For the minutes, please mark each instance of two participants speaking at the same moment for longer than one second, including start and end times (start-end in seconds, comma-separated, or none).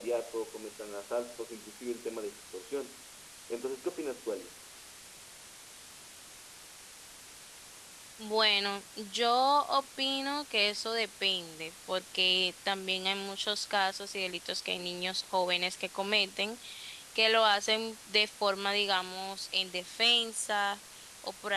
none